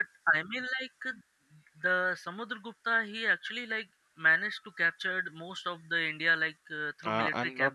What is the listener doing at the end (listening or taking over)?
taking over